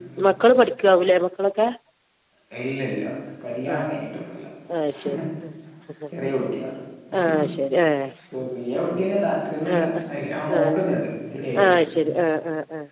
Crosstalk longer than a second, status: none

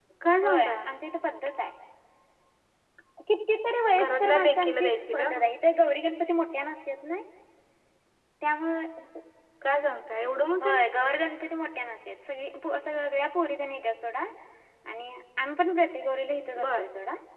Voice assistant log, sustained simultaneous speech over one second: present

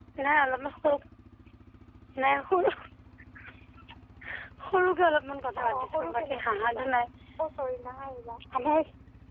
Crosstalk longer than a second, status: present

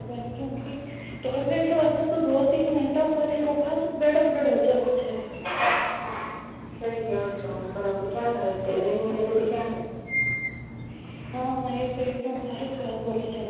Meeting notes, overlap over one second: none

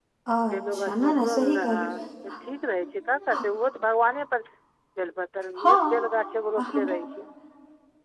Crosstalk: present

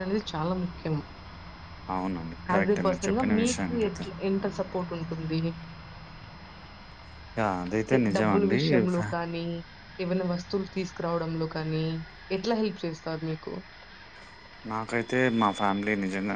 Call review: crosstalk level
present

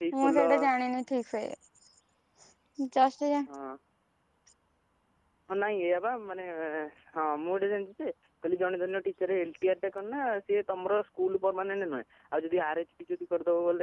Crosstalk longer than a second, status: none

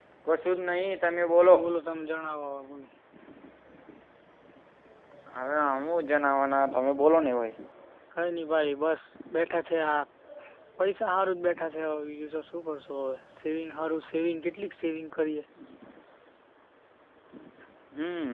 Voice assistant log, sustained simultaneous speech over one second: none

